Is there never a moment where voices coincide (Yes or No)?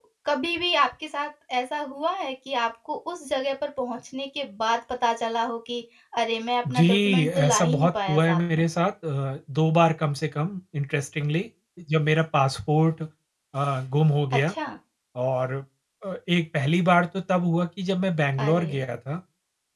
No